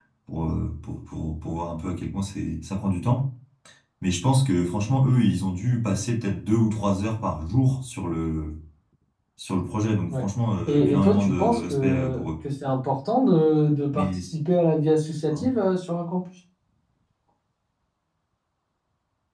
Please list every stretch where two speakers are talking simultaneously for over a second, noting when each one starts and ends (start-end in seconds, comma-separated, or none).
10.7-12.2